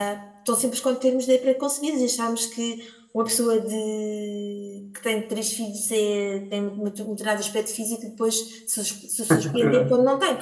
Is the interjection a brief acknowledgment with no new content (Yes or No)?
Yes